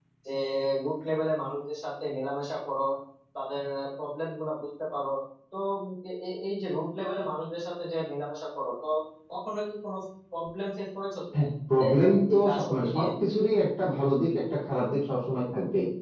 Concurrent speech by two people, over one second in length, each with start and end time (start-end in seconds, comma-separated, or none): 11.8-13.0